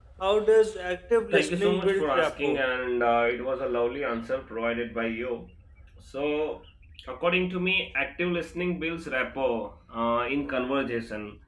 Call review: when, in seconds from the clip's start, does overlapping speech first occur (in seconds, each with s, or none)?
1.3 s